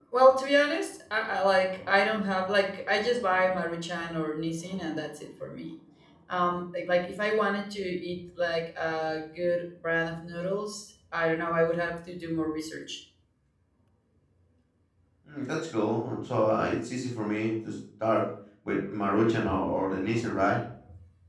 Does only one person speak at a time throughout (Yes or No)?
Yes